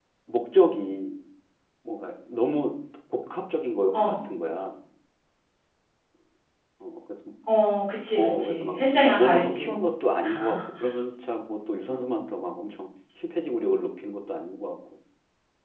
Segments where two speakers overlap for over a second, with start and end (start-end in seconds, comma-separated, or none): 8.2-9.7